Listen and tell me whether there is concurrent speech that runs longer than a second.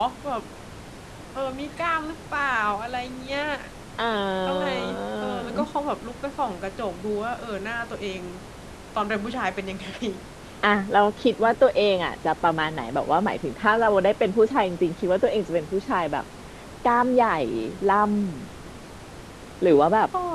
No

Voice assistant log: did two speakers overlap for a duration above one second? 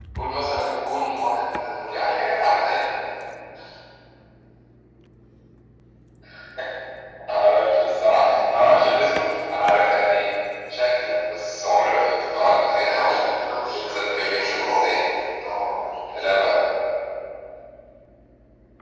Yes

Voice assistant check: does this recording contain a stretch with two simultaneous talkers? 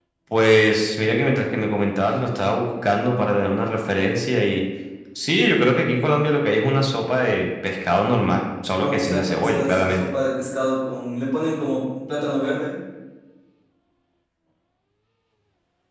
Yes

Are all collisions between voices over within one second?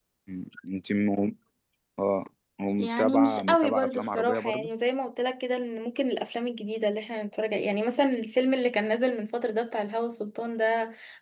No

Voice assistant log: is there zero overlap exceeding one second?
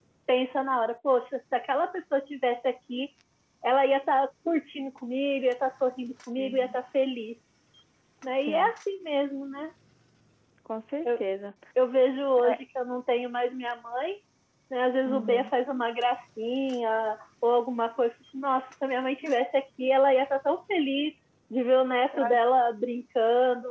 Yes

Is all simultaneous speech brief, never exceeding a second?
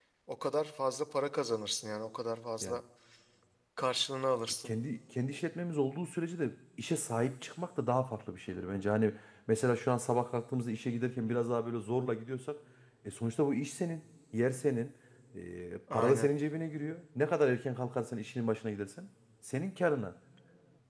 Yes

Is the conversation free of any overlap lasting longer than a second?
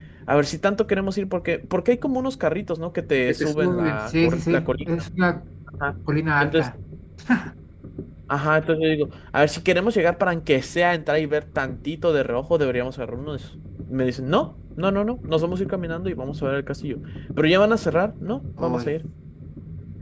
No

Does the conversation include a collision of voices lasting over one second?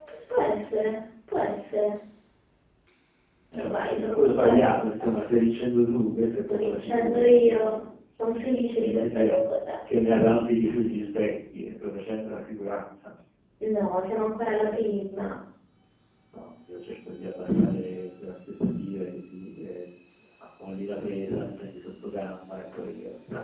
Yes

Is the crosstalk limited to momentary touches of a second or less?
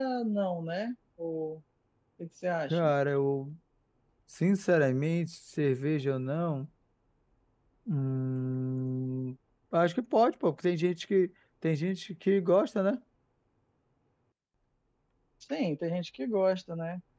Yes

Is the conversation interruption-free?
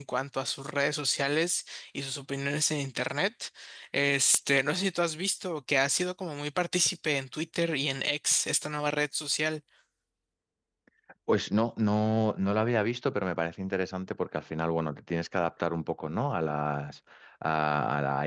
Yes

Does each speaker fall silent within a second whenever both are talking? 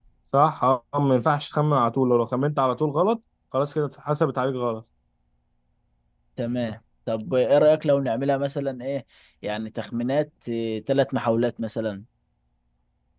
Yes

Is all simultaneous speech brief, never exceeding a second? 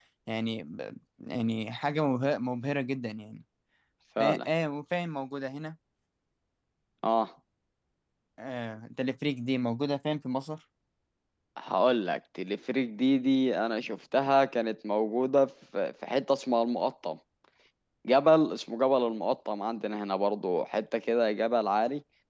Yes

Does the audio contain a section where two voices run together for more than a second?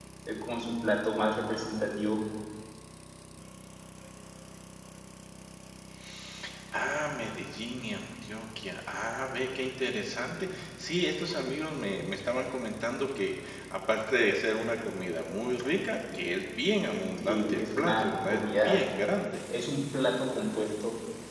Yes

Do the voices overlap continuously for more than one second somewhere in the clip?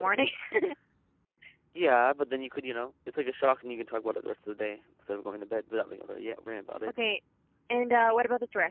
No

